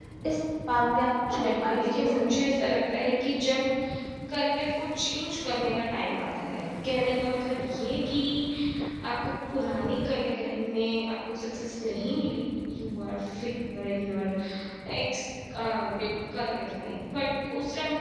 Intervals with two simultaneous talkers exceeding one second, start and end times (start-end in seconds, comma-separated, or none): 1.3-2.5